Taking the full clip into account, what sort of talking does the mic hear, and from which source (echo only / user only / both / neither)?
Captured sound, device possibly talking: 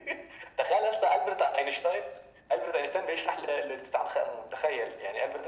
echo only